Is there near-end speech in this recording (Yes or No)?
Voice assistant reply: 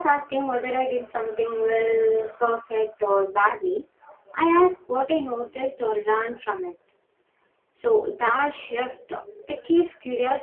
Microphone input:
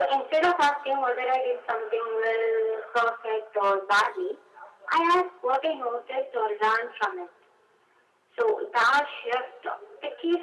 No